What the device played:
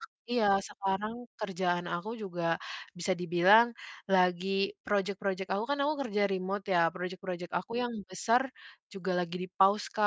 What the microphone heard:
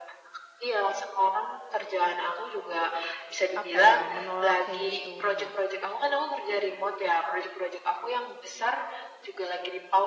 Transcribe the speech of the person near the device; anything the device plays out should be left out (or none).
apa ya, menolak kayak gitu. Nah